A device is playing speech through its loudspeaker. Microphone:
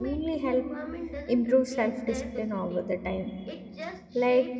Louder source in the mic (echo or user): user